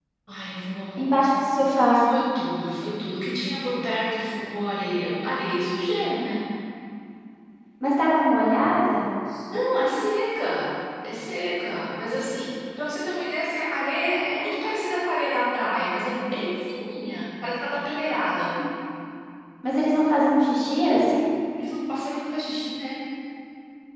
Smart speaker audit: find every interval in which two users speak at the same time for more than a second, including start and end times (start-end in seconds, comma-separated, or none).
none